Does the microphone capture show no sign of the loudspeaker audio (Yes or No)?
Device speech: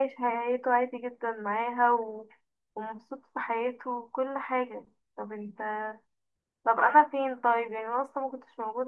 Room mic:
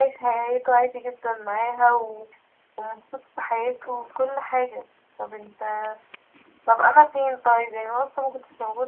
No